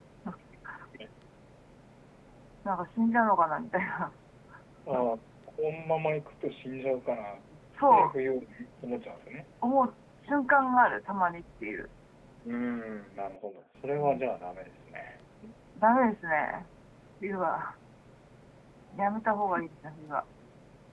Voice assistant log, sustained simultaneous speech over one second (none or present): none